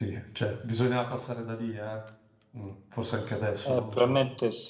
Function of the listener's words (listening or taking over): taking over